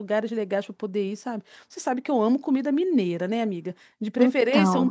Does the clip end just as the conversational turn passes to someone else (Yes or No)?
No